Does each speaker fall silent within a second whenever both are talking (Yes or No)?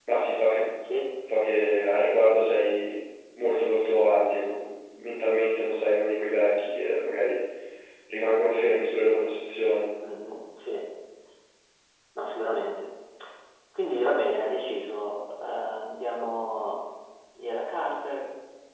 Yes